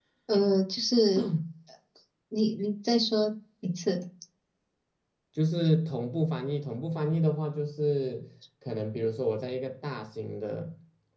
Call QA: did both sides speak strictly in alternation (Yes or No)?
Yes